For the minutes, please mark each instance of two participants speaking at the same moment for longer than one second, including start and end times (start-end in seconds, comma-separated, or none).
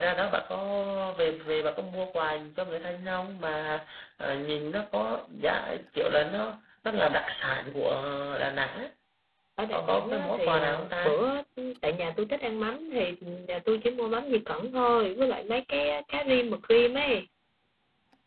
9.7-11.1